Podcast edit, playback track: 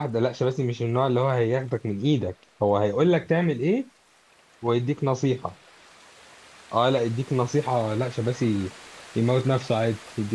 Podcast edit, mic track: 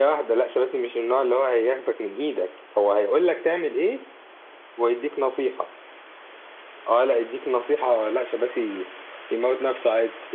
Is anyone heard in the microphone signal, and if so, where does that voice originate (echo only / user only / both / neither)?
echo only